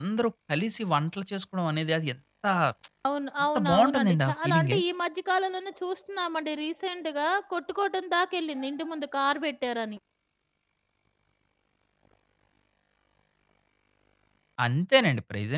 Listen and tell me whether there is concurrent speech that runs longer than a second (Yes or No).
Yes